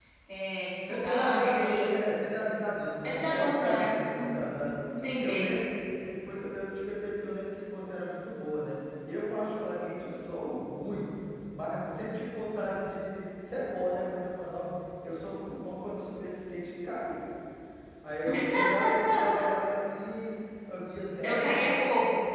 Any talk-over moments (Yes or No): Yes